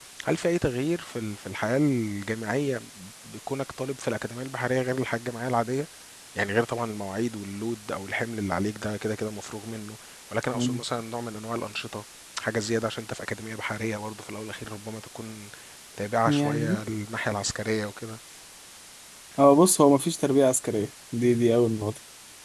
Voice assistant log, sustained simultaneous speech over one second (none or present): none